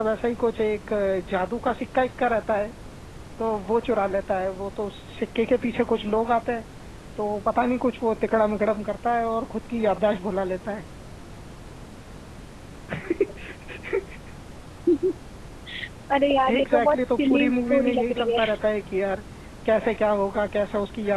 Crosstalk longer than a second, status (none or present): present